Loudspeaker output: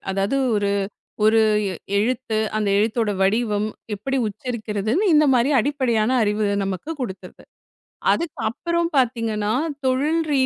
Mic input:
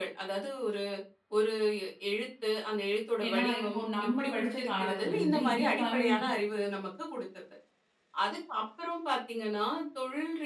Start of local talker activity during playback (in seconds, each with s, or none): 3.2 s